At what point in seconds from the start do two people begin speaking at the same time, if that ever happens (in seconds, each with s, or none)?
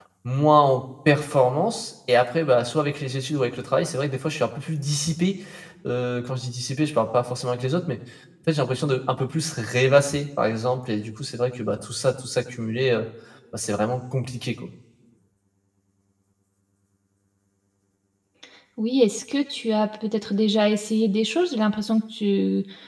none